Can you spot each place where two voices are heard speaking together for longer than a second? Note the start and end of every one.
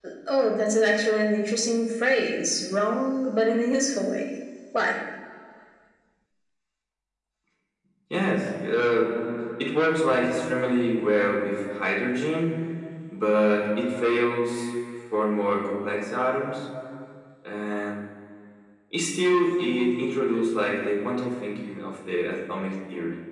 none

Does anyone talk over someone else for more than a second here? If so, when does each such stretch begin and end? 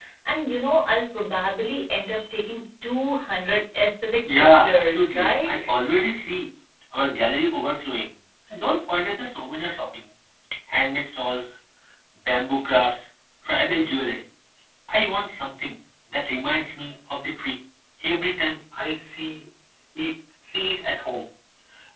4.4-5.6

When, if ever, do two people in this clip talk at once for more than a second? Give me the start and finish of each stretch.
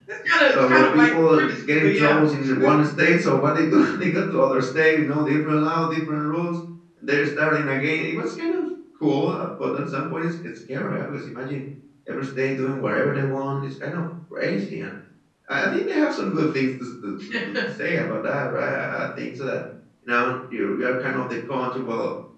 0.5-2.2

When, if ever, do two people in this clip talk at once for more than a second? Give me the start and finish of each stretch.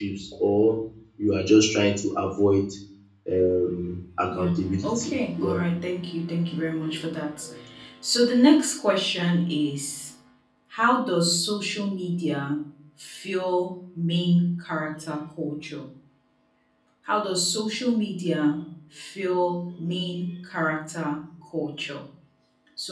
4.3-5.6

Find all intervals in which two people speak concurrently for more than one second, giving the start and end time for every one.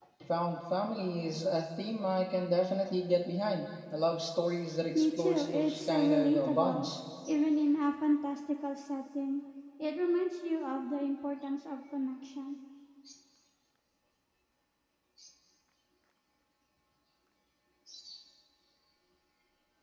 5.0-6.9

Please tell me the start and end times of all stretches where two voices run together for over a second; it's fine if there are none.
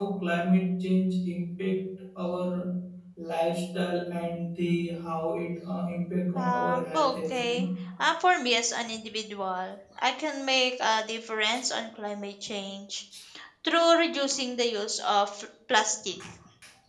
6.3-7.6

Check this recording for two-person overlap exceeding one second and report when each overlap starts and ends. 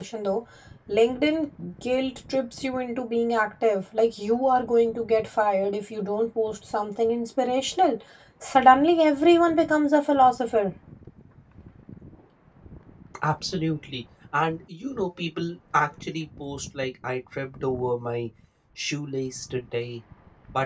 none

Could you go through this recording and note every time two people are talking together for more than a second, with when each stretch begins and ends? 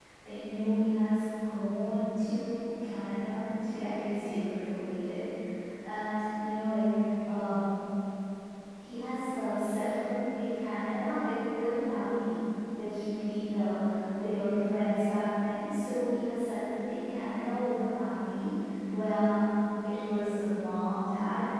none

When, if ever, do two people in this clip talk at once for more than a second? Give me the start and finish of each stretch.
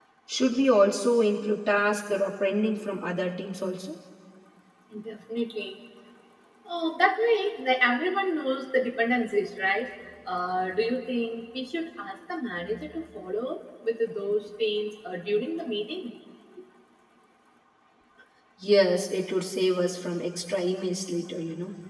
none

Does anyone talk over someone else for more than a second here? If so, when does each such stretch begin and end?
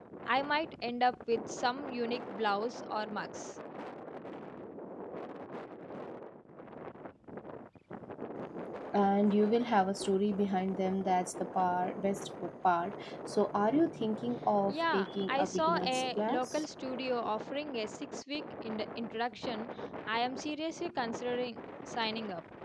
14.7-16.6

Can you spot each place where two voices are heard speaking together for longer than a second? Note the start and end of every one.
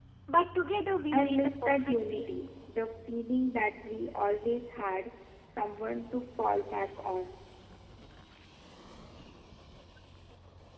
1.1-2.5

